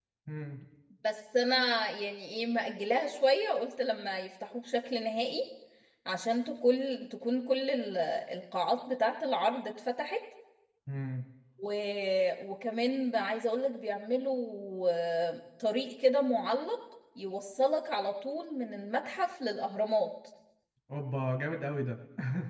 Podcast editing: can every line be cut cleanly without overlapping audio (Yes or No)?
Yes